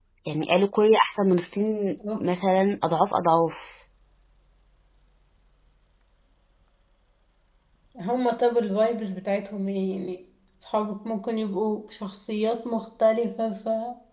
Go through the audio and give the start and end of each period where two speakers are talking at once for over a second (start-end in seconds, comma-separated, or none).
none